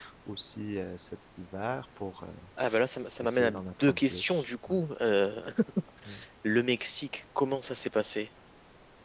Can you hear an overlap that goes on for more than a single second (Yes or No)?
Yes